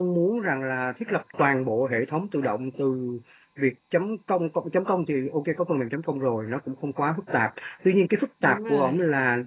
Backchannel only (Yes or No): Yes